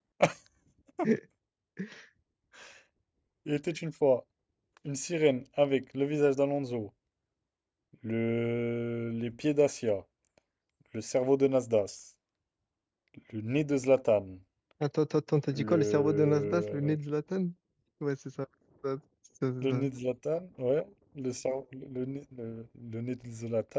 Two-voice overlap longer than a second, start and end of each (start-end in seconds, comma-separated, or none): 15.5-17.0